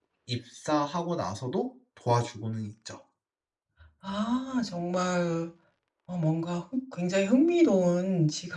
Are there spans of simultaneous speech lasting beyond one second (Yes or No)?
No